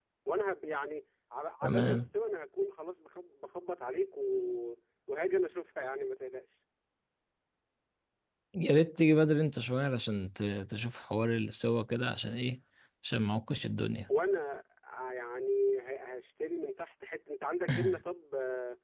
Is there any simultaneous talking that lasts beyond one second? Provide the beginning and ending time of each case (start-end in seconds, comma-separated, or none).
none